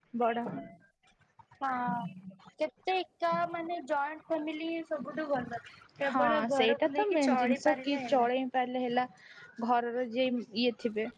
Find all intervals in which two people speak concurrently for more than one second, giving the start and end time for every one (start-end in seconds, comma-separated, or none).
6.1-8.3